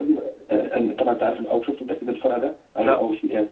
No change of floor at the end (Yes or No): Yes